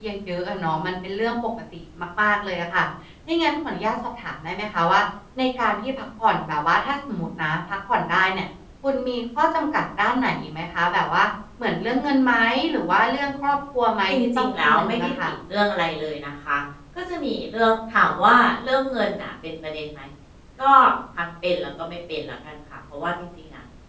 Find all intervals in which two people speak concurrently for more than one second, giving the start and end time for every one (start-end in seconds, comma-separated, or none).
14.1-15.3